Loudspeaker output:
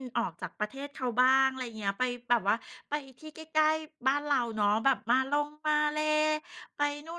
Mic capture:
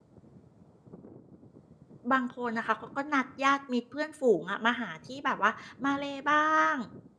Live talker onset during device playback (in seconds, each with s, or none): 2.1 s